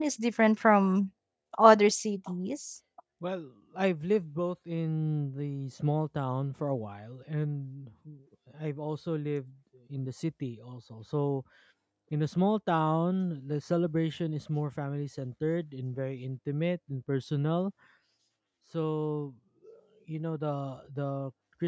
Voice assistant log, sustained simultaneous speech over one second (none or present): none